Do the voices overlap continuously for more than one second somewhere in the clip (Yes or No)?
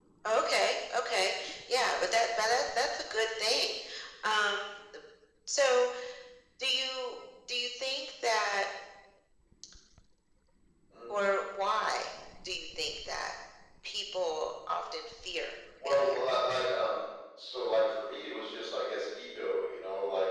No